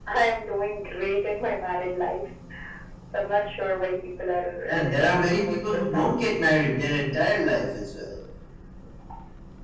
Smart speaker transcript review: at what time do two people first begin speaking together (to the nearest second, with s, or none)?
5 s